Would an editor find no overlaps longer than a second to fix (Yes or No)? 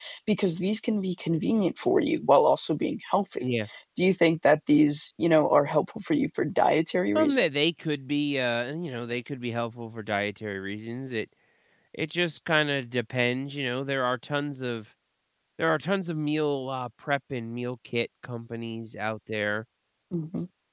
Yes